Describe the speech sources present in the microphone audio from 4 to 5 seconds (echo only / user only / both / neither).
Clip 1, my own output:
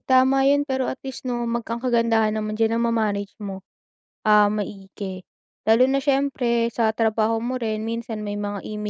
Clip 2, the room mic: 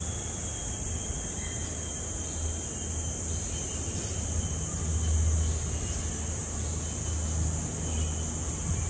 neither